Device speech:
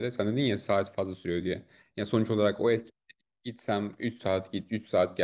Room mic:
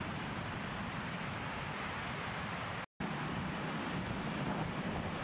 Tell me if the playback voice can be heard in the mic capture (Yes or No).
No